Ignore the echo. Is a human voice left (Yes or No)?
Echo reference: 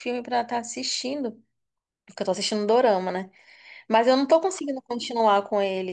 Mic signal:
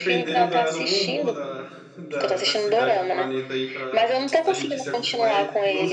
Yes